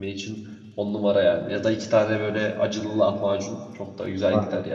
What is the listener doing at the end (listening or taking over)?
taking over